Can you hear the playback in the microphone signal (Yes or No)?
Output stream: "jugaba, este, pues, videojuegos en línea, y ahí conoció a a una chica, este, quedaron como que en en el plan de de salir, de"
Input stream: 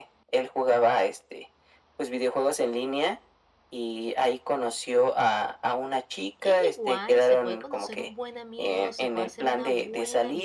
Yes